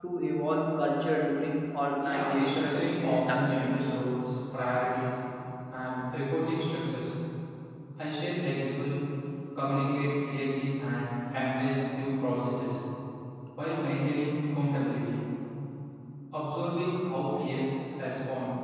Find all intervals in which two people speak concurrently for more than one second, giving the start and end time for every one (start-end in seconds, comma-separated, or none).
2.0-3.9